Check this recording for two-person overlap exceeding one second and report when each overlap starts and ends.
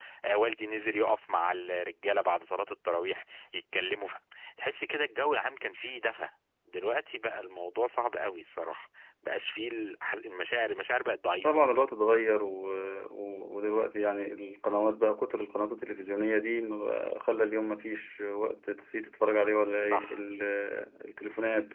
none

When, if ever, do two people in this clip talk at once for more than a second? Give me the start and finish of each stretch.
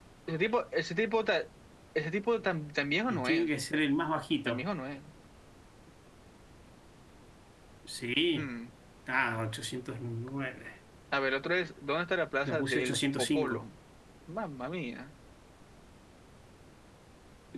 12.4-13.6

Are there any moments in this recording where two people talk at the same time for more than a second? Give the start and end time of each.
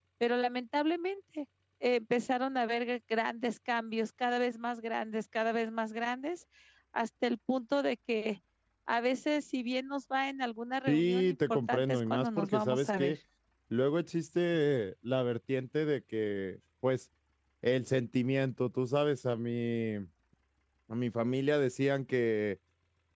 10.9-13.2

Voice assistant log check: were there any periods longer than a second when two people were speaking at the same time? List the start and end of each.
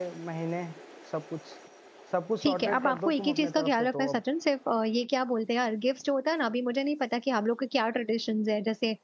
2.4-4.2

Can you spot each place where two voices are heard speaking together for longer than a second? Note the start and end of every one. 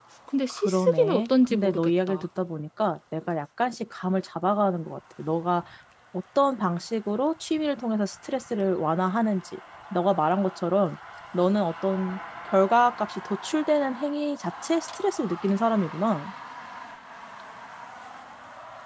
0.5-2.2

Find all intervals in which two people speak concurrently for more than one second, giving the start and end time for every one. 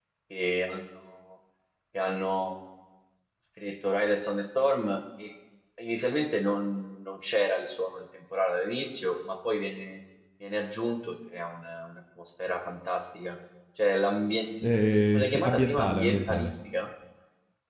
14.6-16.5

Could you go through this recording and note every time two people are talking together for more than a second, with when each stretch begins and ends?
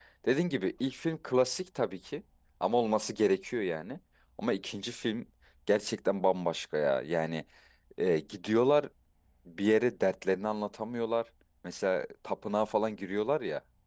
none

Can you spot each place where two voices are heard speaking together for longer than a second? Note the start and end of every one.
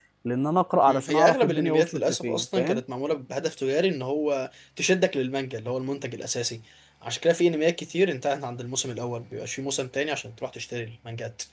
0.9-2.8

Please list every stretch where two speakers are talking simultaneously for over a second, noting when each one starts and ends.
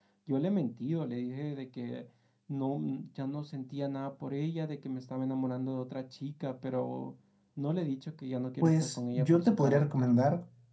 8.6-10.1

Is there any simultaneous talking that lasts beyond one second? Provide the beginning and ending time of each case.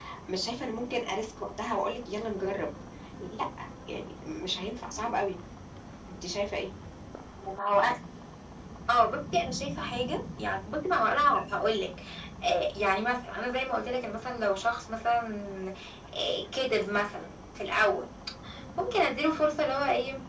none

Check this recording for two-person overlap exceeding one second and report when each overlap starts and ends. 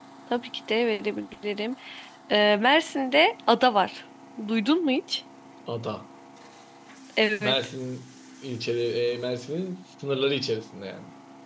none

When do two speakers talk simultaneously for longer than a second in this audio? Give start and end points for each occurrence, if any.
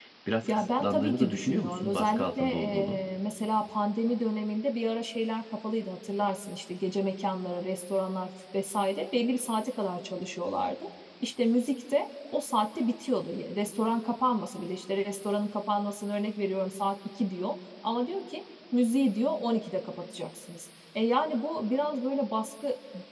0.5-3.0

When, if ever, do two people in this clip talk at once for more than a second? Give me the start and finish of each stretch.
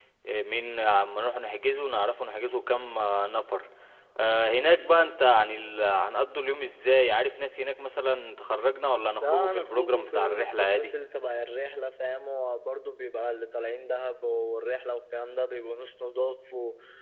9.2-10.9

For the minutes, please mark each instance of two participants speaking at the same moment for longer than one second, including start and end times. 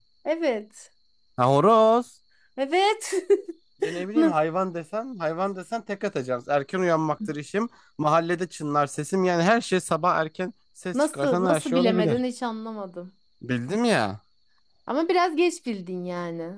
10.9-12.2

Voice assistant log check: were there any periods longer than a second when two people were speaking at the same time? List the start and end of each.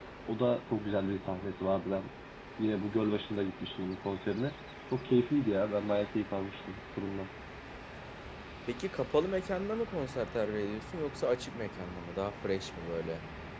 none

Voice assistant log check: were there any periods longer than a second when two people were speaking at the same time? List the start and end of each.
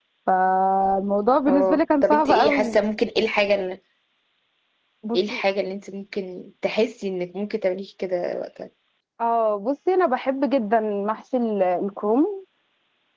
1.5-2.8

